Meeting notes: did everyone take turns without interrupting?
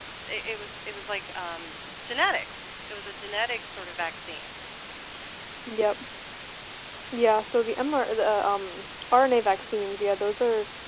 Yes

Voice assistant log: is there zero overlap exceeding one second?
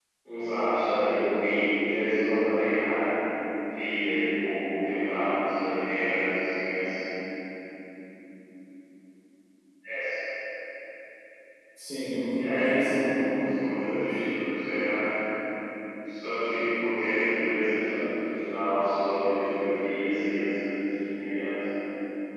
No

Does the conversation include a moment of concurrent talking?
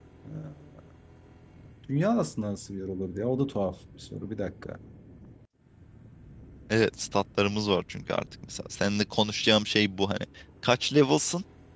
No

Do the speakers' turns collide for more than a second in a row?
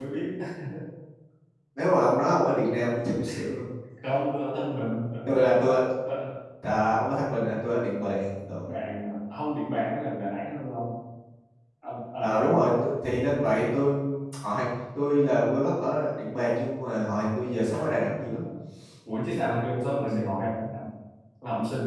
No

